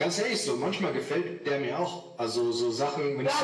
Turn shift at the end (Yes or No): Yes